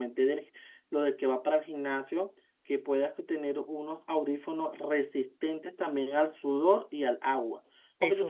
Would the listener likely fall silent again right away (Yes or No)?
Yes